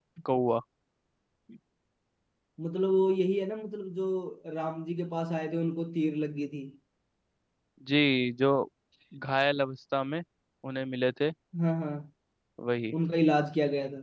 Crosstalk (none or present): none